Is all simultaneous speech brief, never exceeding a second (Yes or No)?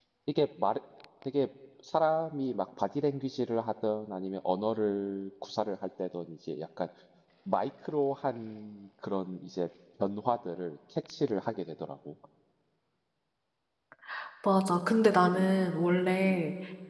Yes